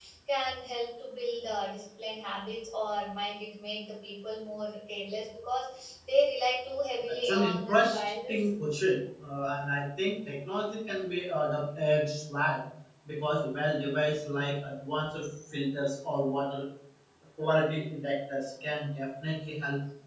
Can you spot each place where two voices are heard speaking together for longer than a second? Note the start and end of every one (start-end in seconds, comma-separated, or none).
7.2-8.5